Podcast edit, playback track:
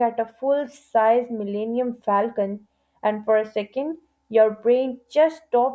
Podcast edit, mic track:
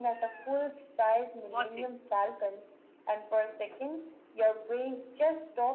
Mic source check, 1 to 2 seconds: both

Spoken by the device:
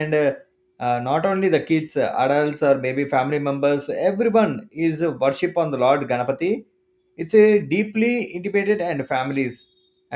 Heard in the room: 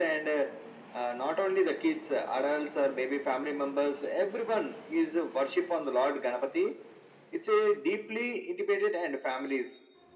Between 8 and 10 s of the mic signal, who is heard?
echo only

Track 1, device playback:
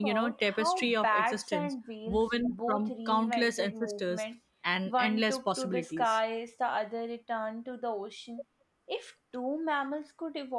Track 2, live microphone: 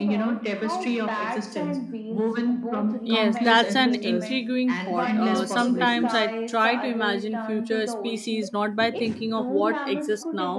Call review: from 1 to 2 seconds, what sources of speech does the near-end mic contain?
echo only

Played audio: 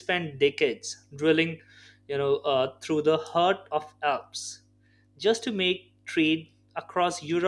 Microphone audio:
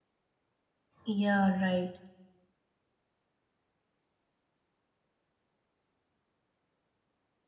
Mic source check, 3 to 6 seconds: neither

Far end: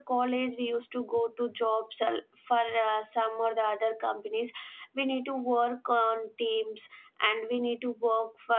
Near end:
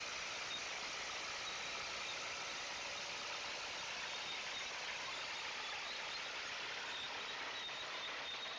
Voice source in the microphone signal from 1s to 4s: neither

